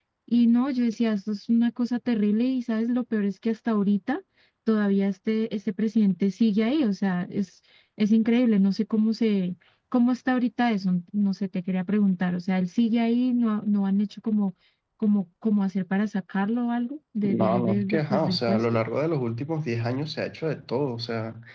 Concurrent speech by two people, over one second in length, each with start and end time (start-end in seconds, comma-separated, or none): 17.2-18.6